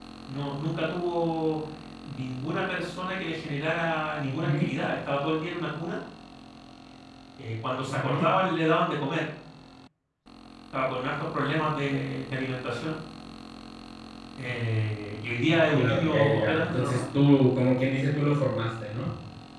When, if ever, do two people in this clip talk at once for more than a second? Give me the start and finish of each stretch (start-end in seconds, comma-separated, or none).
15.7-17.0